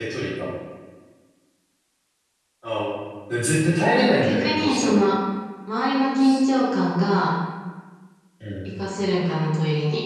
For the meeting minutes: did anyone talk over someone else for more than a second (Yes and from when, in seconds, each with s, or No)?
Yes, from 3.8 s